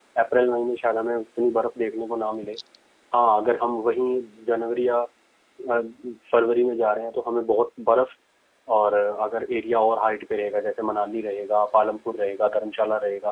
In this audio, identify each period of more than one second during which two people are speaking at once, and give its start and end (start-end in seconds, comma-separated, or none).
none